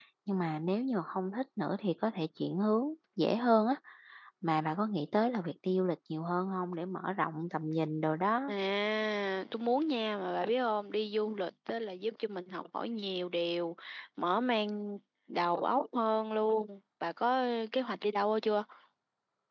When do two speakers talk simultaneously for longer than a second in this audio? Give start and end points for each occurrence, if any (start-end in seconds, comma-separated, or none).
none